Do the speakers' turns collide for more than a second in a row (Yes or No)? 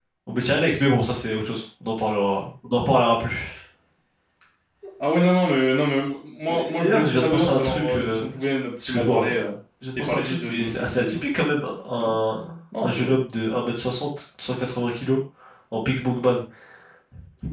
Yes